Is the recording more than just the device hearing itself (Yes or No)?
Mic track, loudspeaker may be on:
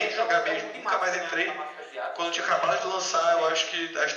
No